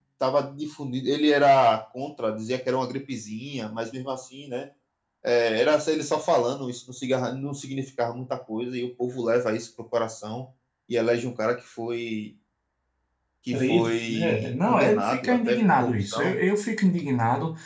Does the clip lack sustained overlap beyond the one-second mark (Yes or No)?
No